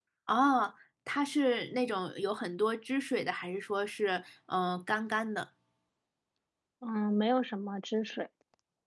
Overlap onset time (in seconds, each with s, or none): none